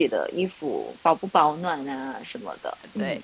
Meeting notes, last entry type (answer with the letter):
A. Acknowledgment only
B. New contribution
B